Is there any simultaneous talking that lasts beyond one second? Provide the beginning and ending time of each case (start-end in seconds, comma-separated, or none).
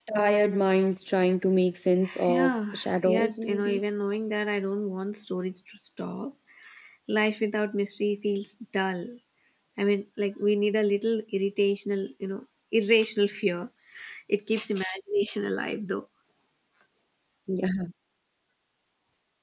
2.3-3.8